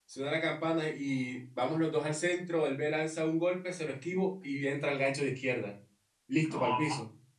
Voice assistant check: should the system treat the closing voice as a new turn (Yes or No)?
Yes